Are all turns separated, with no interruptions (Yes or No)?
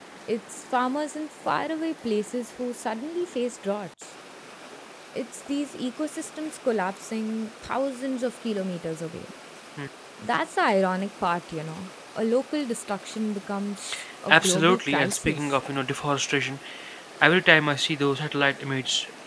No